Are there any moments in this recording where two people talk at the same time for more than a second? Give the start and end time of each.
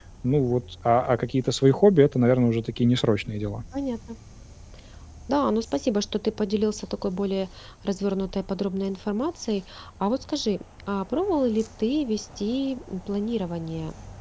none

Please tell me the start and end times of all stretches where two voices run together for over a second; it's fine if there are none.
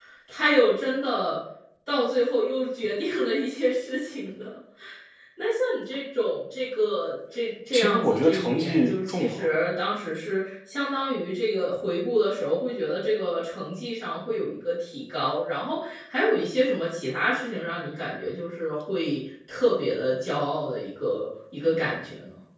7.7-9.5

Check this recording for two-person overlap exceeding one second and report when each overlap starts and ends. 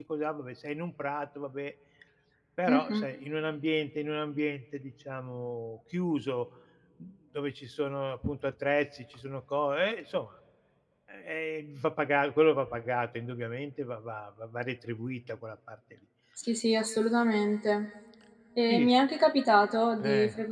none

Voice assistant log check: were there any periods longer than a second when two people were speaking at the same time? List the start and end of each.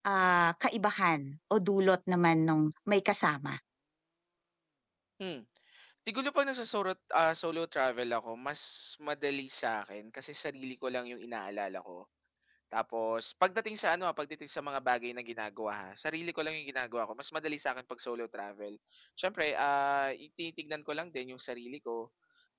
none

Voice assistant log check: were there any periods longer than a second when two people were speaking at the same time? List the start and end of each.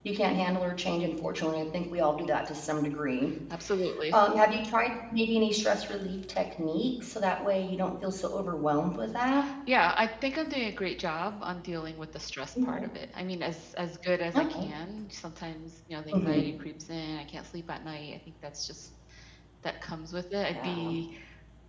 none

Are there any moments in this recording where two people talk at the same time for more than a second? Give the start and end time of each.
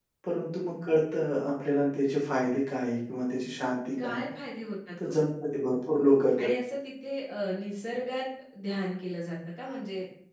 none

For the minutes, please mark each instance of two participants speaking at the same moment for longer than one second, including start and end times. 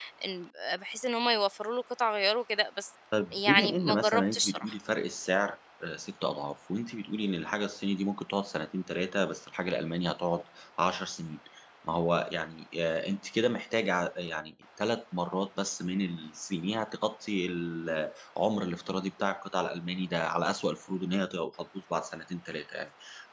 3.5-4.7

